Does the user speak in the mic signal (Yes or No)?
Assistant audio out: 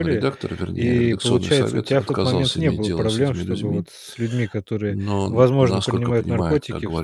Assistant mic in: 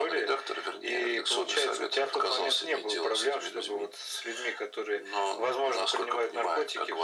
No